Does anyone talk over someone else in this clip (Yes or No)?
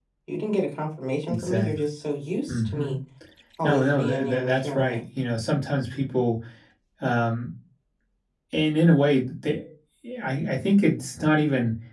Yes